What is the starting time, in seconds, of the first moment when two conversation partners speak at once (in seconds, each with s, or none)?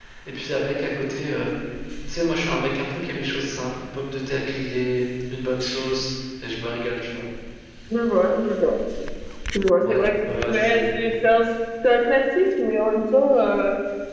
9.8 s